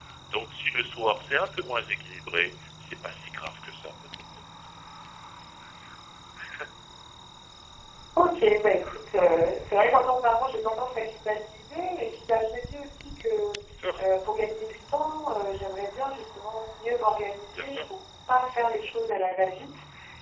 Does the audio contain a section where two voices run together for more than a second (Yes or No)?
No